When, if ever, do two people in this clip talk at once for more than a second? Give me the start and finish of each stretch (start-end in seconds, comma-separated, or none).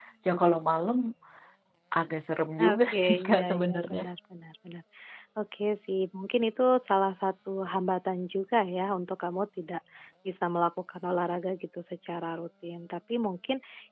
2.6-4.0